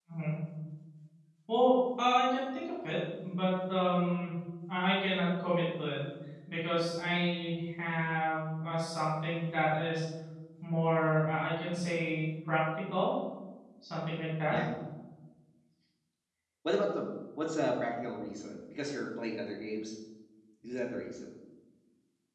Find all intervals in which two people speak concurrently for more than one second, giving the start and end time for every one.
none

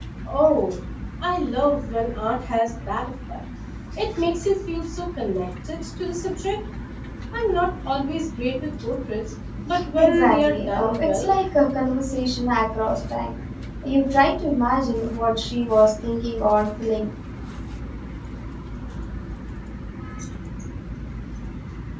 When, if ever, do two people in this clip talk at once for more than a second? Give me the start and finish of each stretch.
10.0-11.3

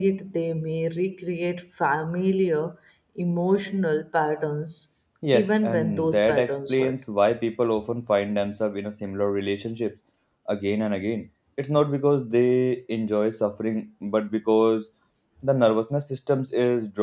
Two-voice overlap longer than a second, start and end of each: 5.3-6.9

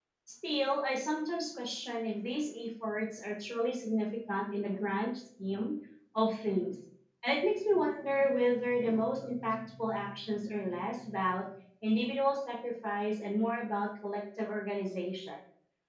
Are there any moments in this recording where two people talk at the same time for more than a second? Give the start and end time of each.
none

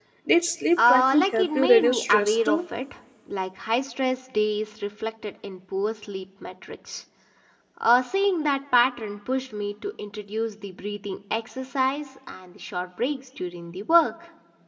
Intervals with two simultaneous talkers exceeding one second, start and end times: 0.9-2.6

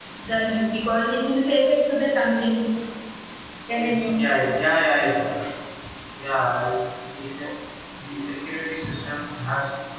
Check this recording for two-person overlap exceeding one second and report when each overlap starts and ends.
none

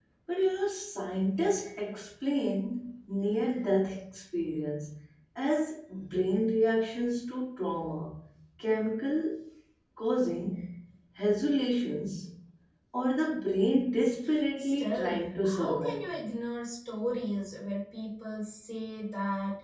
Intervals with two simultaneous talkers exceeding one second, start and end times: 14.6-16.1

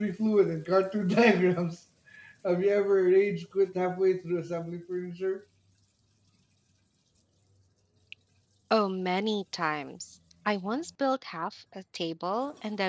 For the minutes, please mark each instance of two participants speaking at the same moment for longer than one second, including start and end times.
none

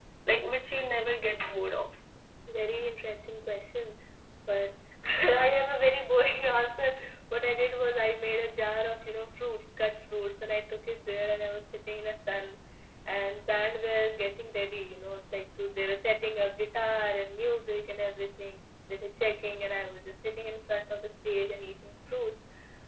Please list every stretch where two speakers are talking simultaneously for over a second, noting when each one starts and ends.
none

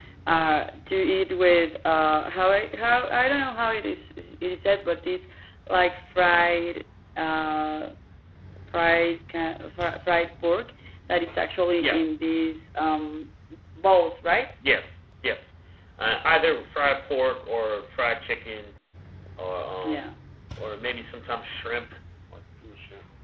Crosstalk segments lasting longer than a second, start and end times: none

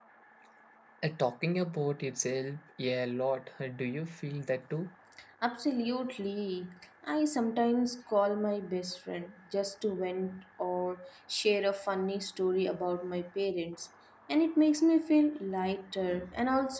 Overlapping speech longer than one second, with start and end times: none

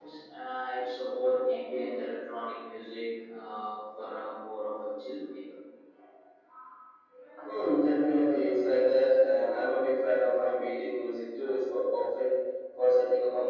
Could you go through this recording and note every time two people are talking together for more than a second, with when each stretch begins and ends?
none

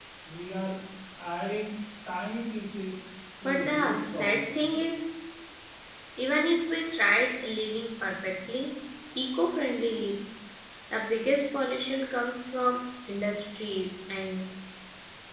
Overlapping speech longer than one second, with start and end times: 3.4-4.6

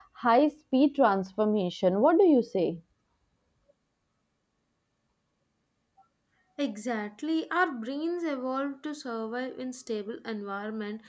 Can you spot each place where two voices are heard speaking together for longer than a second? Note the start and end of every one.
none

